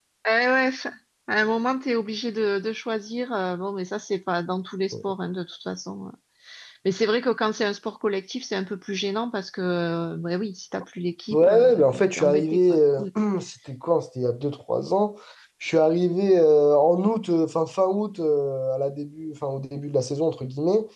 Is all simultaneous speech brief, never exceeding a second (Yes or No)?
No